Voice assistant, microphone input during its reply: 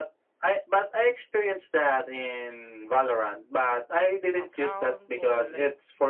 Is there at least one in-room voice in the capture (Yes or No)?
Yes